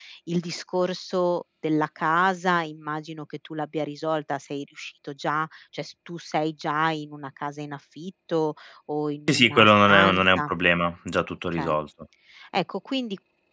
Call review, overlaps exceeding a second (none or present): present